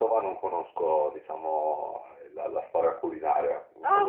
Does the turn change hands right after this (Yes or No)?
Yes